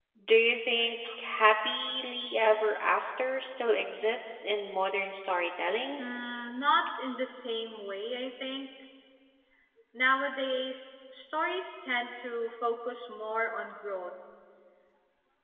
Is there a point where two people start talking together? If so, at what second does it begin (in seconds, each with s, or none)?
none